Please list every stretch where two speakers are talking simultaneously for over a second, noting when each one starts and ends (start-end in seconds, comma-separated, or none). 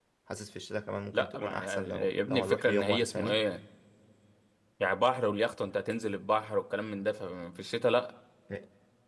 1.1-3.4